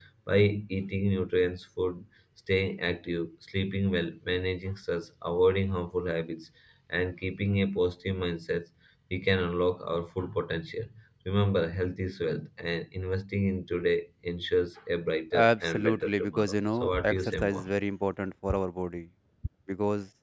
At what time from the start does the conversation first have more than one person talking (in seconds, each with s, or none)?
15.3 s